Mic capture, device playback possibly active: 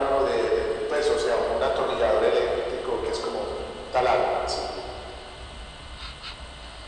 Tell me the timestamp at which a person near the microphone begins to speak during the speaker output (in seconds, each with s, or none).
none